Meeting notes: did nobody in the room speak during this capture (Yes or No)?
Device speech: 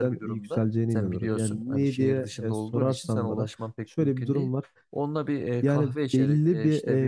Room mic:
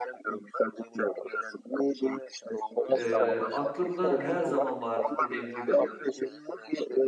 No